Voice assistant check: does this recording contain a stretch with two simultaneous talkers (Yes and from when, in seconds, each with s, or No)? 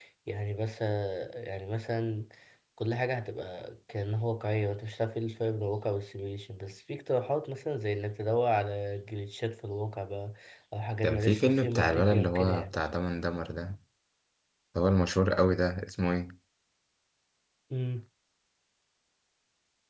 Yes, from 11.0 s